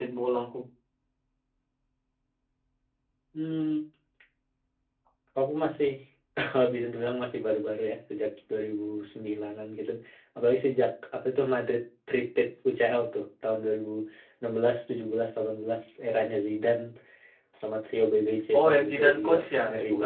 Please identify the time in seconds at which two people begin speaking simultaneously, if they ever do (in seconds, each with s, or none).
18.5 s